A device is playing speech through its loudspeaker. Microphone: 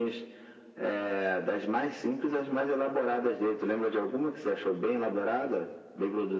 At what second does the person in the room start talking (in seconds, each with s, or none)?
none